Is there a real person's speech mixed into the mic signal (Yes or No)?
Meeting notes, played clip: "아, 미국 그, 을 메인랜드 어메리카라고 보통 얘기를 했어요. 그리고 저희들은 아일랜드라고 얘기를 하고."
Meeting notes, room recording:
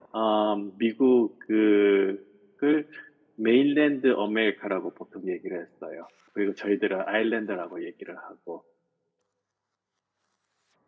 No